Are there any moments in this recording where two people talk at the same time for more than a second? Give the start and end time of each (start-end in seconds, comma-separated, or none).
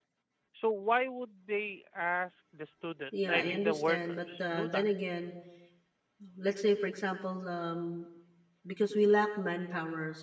3.1-4.9